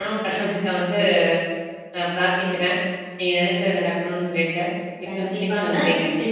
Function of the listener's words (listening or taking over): taking over